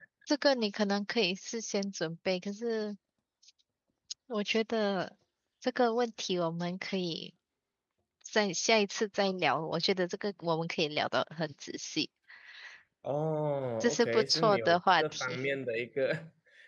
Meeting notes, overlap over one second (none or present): present